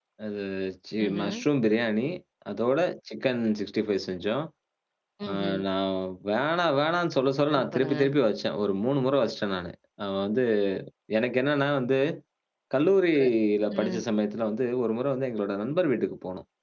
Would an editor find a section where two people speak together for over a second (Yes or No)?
No